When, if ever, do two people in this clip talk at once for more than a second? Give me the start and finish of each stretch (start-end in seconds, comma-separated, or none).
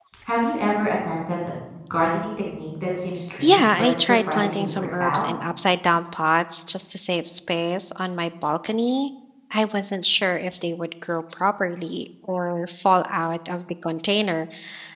3.4-5.2